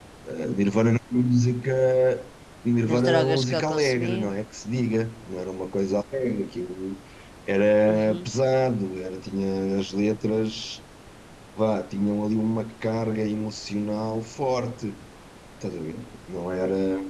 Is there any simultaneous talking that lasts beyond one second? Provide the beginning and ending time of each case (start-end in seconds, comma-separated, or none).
2.9-4.2